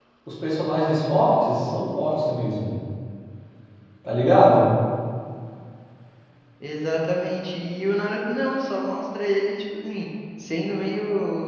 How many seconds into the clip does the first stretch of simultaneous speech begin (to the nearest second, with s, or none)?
none